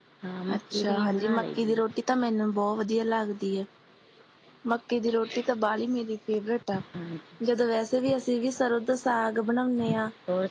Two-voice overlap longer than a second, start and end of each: 0.6-1.8

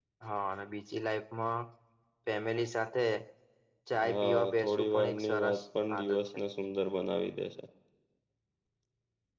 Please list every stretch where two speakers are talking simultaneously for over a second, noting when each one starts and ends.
4.0-5.6

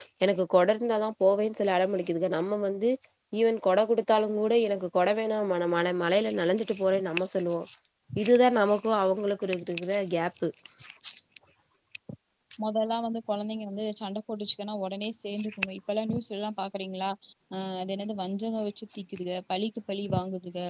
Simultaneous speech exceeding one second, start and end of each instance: none

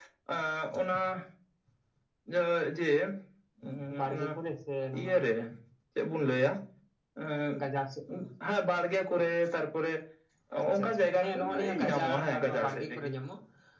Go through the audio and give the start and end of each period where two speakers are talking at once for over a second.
10.6-13.1

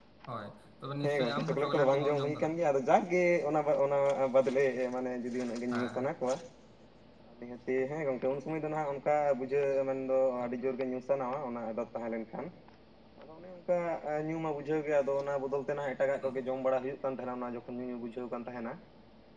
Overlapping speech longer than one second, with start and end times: 1.0-2.5

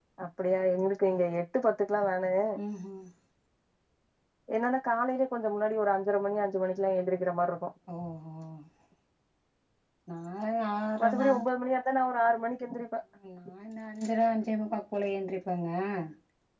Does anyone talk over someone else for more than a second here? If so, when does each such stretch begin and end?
none

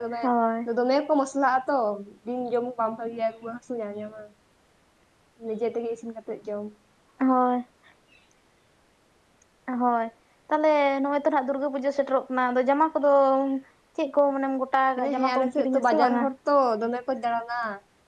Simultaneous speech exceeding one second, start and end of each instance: 15.0-16.2

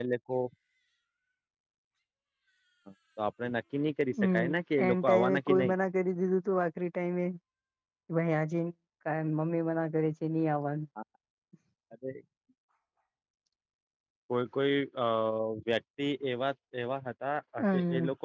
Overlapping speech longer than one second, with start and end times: 4.2-5.7

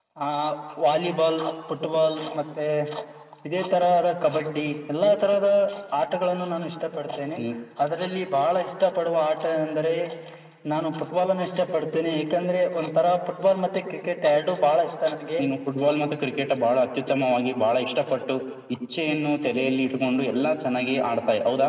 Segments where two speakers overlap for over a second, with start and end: none

